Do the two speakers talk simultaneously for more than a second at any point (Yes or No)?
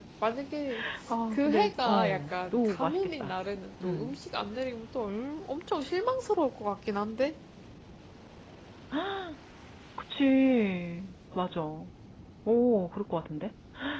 Yes